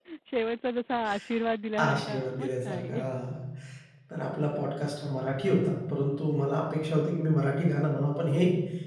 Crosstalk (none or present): present